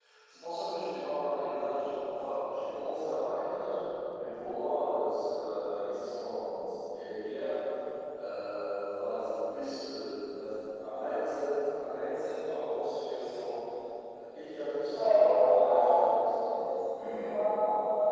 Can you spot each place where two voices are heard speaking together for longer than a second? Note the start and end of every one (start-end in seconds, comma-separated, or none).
14.9-16.6